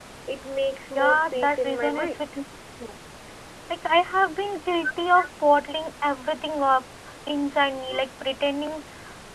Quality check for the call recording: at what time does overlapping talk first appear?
1 s

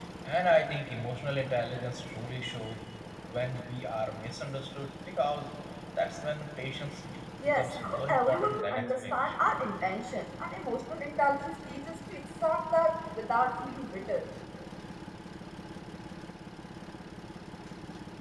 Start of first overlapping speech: 7 s

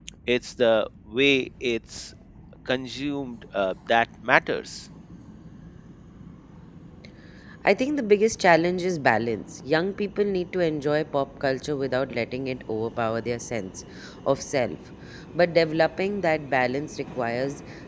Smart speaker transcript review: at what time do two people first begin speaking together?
none

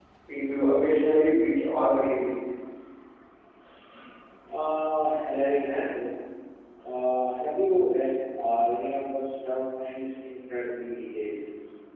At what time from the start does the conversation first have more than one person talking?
none

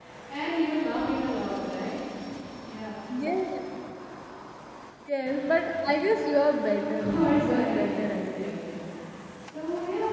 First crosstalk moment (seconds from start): 7 s

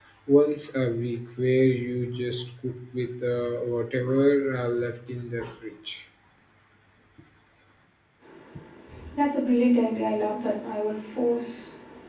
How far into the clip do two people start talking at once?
none

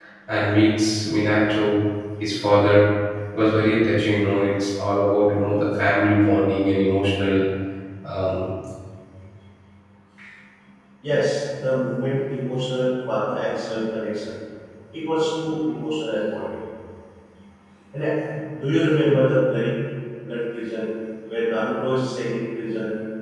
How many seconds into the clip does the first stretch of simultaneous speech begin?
none

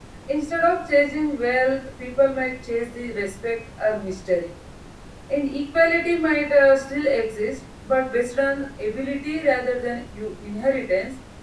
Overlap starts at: none

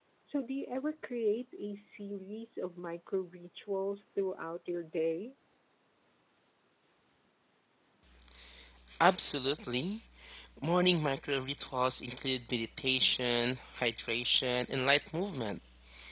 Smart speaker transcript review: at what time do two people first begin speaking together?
none

